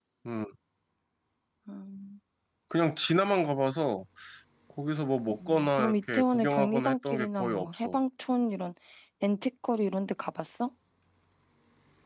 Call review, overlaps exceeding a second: present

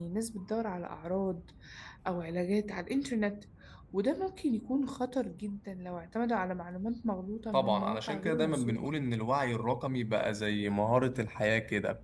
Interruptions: present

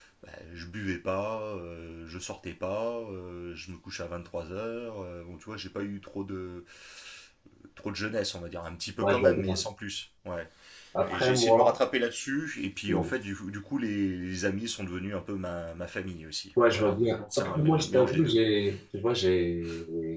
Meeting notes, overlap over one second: present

